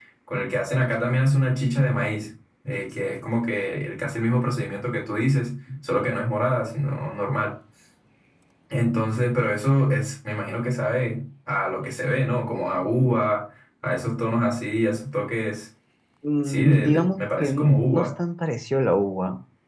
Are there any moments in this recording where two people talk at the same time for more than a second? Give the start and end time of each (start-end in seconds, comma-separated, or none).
16.4-18.1